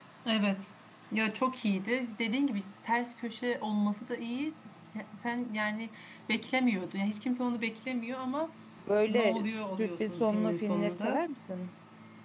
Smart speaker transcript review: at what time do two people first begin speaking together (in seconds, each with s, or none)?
9.1 s